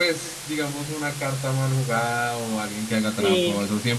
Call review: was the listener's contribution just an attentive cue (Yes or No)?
Yes